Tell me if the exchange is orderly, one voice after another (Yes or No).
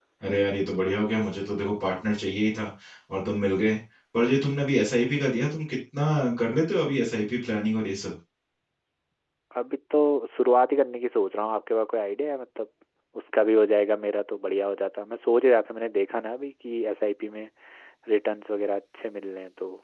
Yes